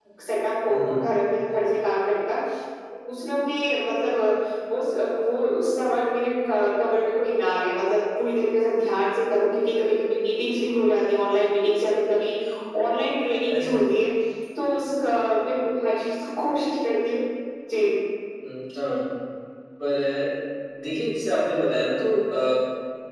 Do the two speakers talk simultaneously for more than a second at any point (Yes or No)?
No